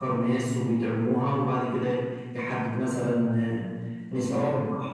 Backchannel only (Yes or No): No